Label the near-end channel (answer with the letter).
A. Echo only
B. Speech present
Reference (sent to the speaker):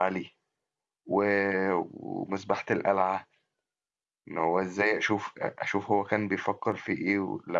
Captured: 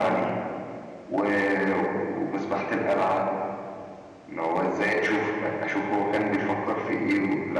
A